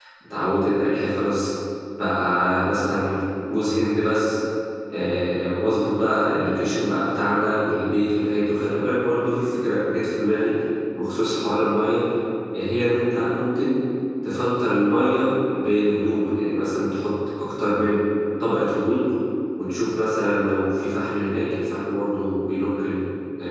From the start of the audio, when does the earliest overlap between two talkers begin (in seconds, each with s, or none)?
none